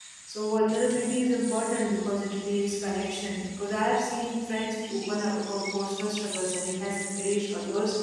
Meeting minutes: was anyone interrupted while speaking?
No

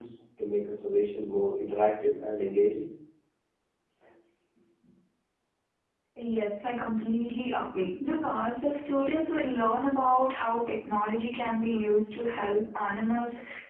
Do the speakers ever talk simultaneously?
No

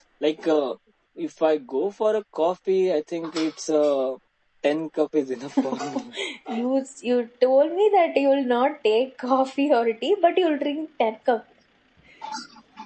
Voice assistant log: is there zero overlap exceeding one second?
Yes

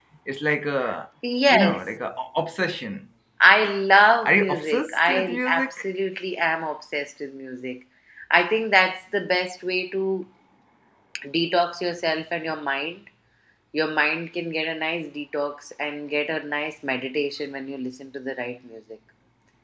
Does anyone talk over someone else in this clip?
Yes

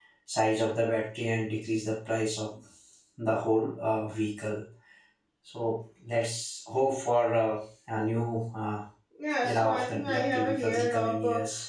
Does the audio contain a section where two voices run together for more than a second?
Yes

